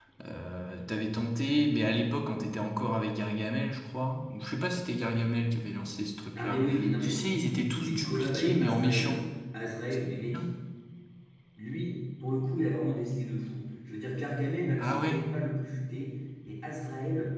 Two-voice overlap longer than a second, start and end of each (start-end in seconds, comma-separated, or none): 6.3-9.2